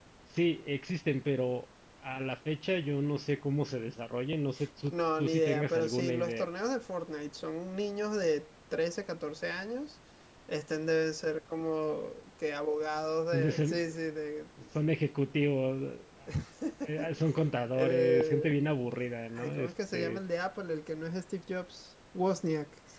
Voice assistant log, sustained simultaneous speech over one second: present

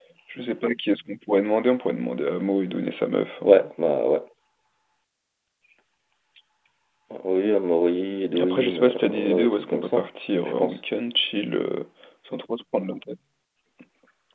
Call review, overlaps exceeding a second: present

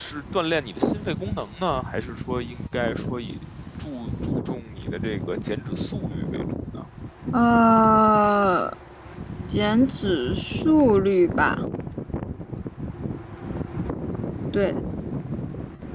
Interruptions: none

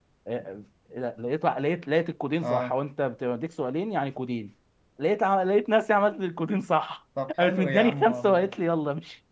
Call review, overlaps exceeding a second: present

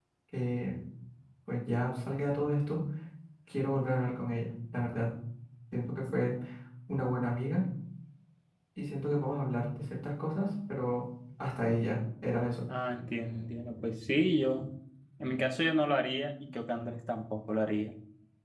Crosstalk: none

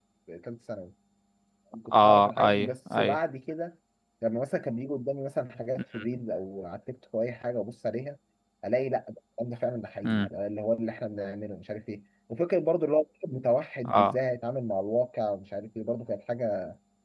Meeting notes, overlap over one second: present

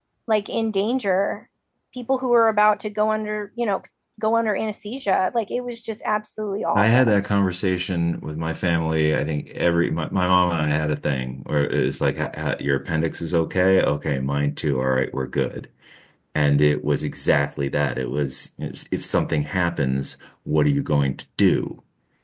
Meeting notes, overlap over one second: none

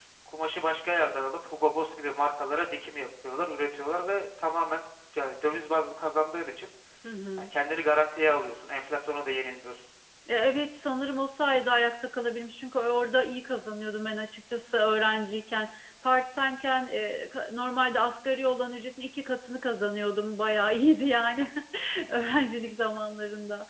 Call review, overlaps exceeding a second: none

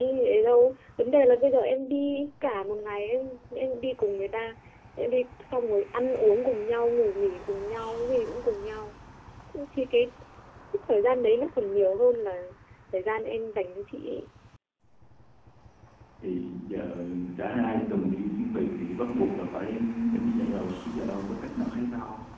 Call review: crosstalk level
none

